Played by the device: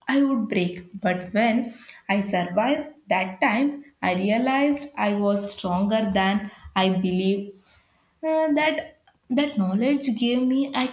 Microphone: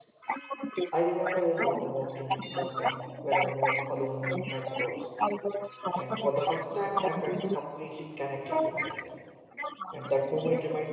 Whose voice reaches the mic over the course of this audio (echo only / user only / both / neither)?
both